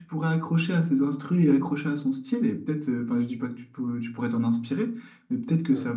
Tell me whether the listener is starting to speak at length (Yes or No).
No